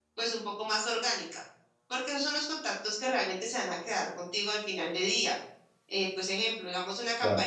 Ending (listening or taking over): listening